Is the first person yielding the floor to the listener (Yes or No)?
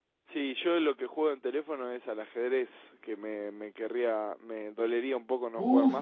Yes